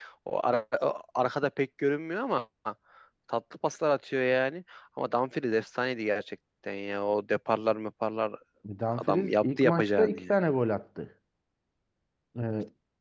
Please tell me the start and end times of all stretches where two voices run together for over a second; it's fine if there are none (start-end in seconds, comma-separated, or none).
9.0-10.3